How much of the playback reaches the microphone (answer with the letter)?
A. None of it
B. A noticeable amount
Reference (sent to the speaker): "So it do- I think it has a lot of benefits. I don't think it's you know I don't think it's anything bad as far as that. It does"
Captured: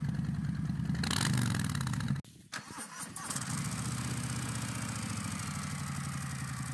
A